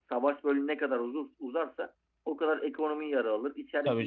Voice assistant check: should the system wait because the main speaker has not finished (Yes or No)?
Yes